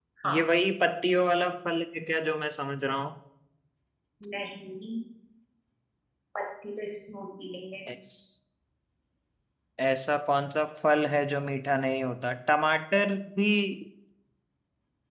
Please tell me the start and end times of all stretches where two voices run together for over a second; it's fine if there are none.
none

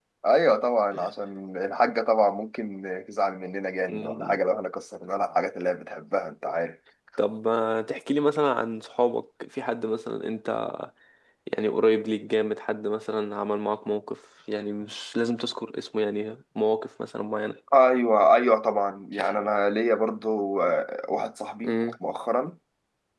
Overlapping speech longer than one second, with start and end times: none

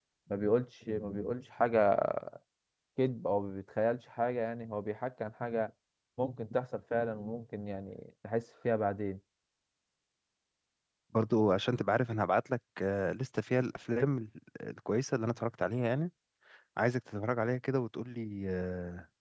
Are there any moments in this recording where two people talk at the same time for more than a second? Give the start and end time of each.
none

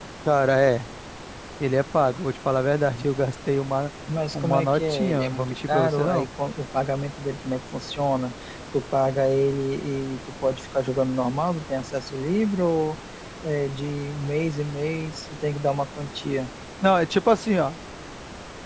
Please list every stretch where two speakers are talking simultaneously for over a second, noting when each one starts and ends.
4.3-6.3

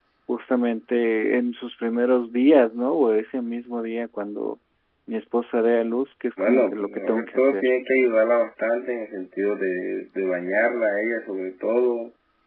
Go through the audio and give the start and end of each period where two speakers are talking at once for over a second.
6.4-7.7

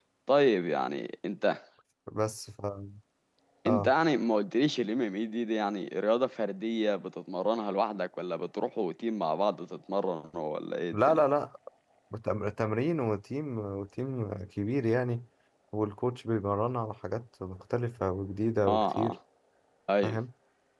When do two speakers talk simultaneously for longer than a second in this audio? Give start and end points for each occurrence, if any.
none

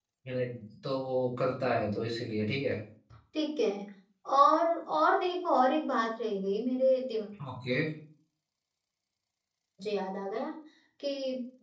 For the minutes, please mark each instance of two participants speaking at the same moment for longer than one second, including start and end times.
none

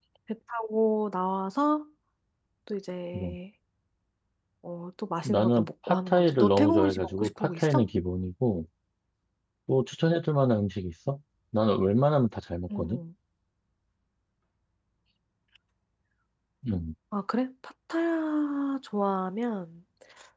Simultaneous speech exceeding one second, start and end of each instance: 5.2-7.8

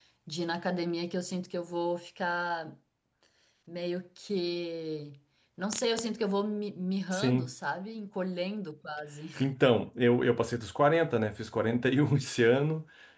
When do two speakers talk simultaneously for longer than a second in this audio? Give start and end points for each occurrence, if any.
none

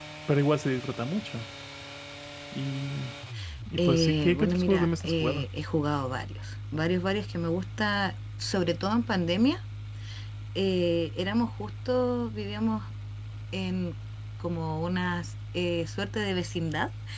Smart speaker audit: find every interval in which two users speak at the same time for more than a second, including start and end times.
3.8-5.5

